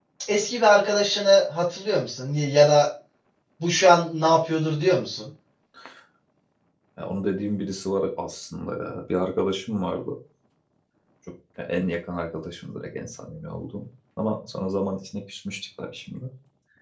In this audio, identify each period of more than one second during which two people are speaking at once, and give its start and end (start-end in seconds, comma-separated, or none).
none